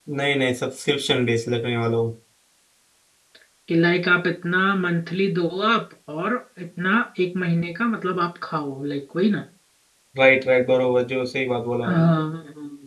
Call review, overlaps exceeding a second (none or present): none